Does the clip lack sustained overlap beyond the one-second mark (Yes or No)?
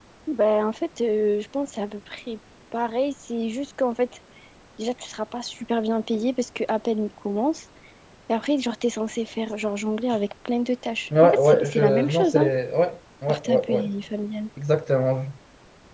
No